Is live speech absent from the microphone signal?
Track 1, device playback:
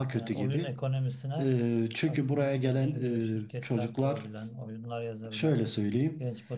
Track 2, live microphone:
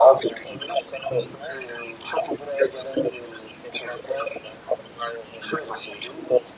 Yes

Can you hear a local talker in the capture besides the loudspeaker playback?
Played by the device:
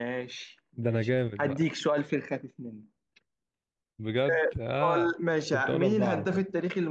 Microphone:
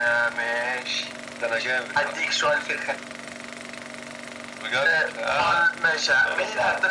No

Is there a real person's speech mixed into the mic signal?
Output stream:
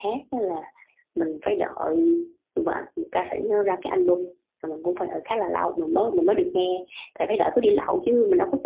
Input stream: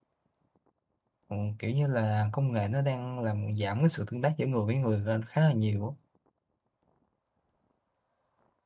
Yes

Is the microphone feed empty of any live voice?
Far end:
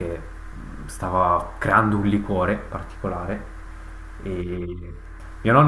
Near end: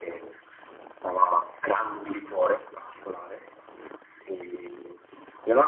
Yes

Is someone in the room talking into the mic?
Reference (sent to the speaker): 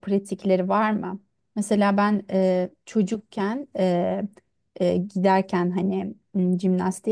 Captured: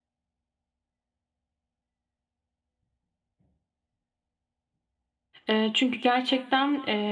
Yes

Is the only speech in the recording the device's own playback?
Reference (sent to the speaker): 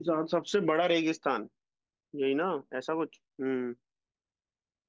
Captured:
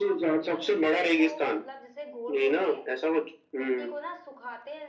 No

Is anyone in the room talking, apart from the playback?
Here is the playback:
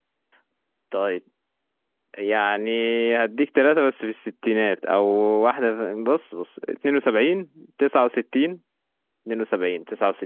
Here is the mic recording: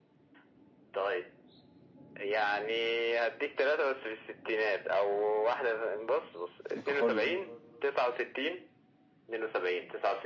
Yes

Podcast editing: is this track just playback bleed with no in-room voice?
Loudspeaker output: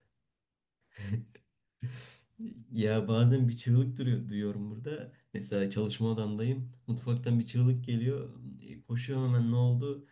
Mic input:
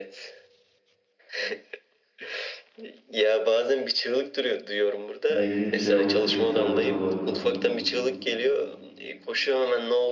No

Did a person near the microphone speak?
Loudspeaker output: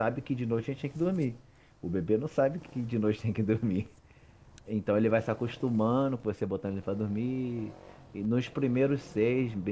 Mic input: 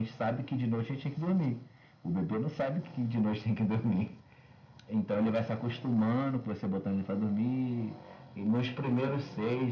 No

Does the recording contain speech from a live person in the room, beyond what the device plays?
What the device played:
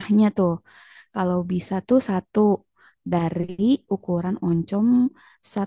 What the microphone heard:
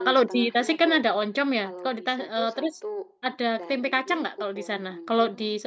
Yes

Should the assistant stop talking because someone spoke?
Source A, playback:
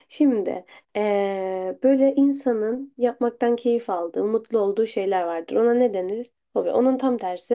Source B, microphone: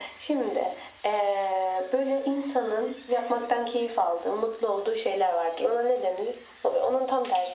No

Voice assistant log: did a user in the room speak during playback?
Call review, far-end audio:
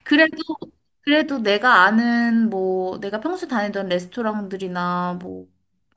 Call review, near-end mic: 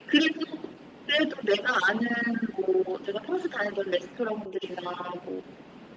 No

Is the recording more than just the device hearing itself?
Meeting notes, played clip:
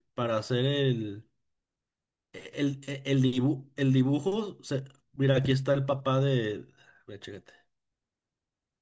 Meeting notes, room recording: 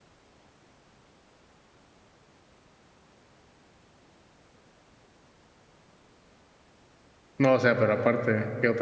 Yes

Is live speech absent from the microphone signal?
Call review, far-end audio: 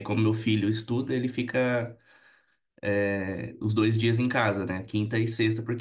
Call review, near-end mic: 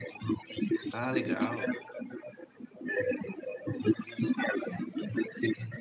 No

